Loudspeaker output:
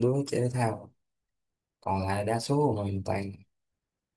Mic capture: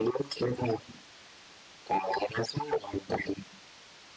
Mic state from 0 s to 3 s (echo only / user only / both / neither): echo only